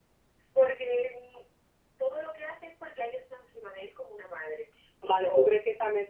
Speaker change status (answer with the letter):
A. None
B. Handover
B